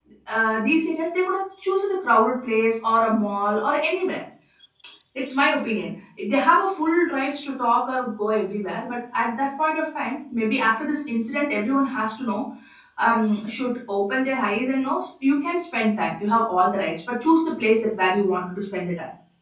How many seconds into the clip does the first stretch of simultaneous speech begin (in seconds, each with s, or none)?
none